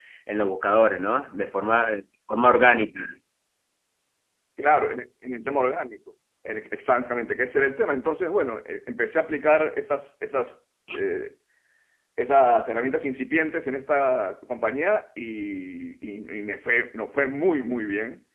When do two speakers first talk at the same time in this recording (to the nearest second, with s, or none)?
none